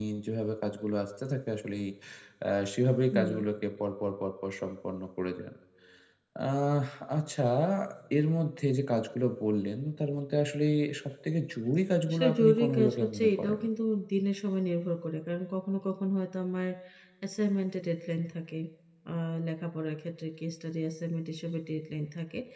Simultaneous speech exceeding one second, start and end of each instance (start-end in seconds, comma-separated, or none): 12.1-13.6